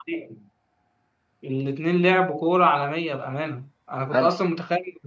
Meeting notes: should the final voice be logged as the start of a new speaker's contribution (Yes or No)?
No